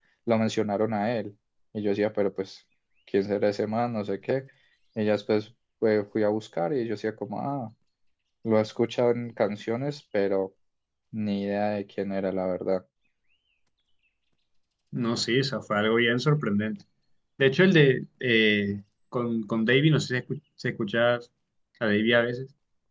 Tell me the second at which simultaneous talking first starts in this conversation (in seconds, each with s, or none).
none